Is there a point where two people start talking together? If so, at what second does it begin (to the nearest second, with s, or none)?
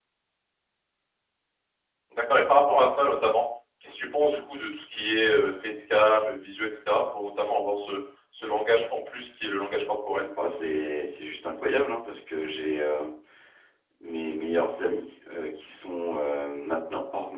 none